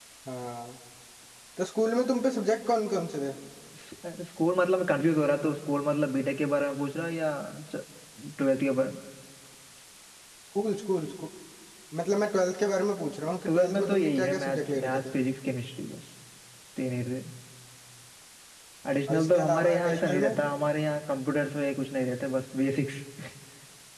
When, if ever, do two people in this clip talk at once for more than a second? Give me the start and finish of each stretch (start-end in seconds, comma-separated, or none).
13.5-15.0, 19.1-20.3